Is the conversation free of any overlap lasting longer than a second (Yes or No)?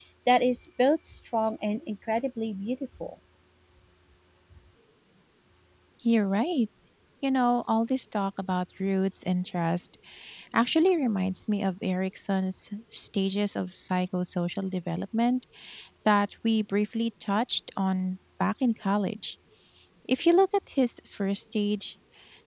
Yes